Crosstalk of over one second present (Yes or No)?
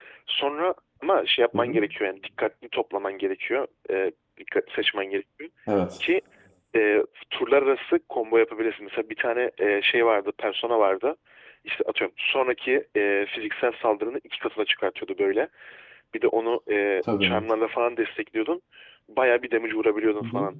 No